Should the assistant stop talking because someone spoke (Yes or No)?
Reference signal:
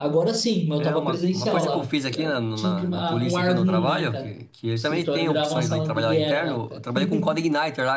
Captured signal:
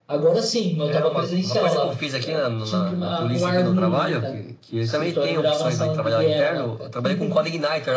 No